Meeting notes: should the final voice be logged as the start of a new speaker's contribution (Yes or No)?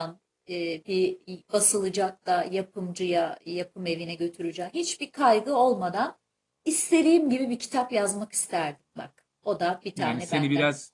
Yes